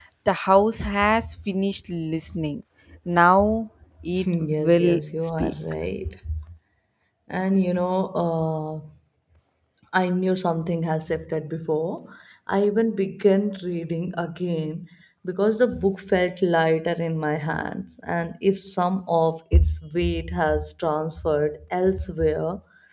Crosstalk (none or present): present